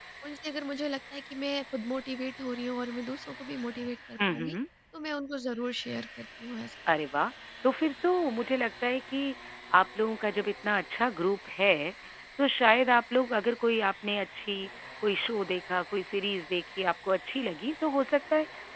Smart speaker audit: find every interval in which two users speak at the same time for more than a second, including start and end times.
none

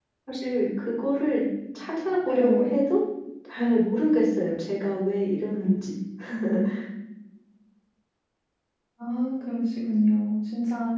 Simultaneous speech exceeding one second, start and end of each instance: none

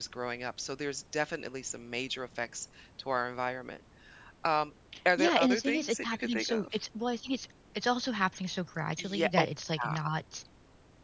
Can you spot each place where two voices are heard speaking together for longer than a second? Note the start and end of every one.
5.2-6.8

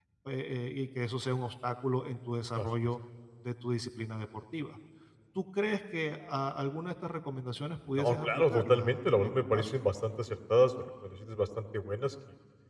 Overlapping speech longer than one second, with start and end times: 7.9-9.7

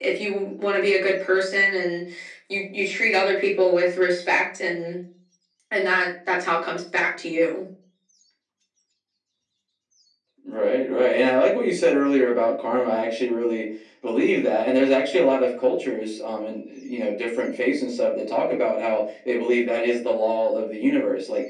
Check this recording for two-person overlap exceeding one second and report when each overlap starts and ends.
none

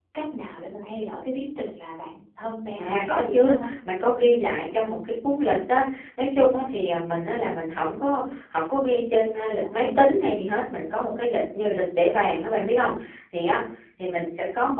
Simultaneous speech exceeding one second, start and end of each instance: 2.8-4.4

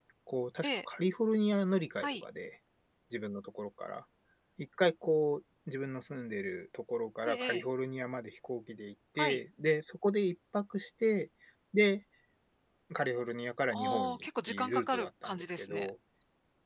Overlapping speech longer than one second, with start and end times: 13.7-15.9

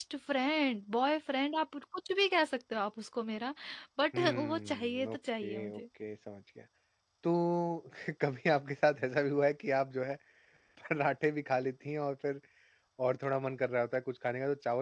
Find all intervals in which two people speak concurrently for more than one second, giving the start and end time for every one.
4.1-5.8

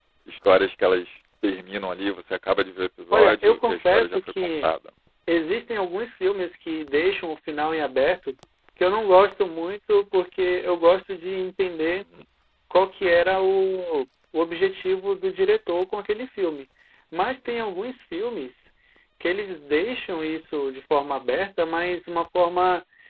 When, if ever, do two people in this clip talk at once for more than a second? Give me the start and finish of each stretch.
3.1-4.7

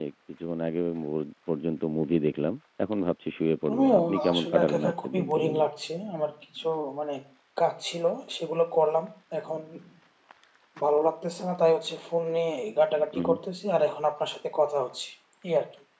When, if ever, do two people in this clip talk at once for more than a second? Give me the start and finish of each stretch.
3.7-5.7

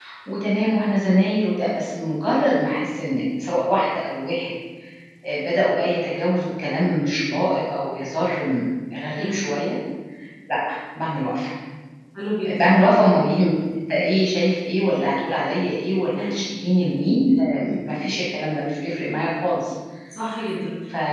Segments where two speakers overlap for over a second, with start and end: none

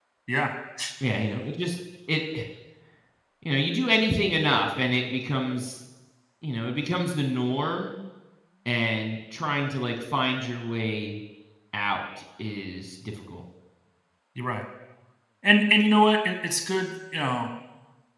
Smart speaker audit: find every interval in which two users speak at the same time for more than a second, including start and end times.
none

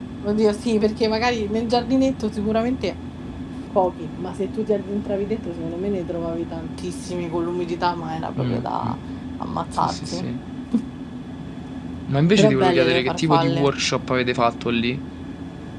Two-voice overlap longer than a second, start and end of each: 12.4-13.6

